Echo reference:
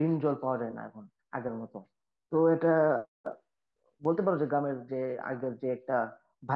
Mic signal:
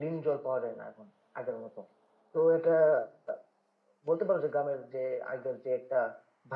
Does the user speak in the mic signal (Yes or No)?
No